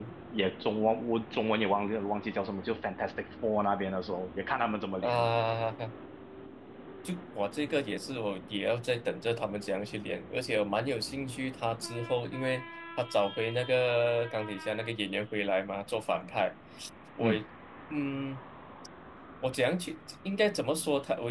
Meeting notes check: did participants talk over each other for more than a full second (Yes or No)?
No